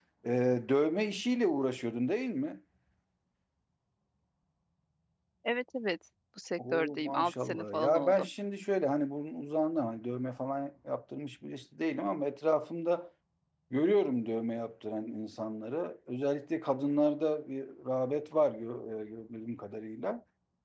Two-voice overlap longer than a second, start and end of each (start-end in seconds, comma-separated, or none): 6.6-8.3